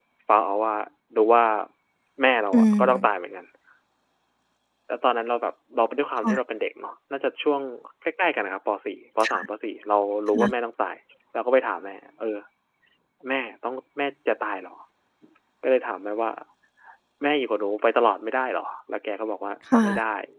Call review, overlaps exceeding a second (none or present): none